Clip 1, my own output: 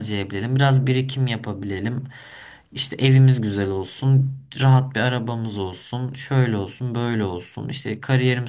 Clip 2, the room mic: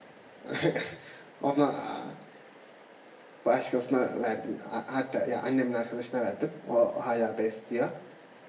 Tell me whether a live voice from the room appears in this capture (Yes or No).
Yes